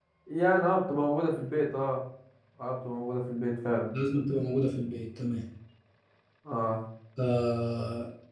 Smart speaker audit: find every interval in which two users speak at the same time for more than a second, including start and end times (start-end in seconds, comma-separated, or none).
none